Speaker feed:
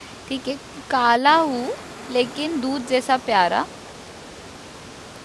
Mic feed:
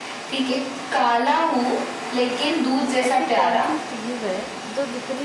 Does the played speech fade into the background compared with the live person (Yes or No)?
No